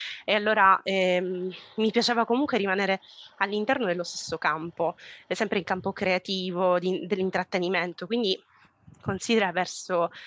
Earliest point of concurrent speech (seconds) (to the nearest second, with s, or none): none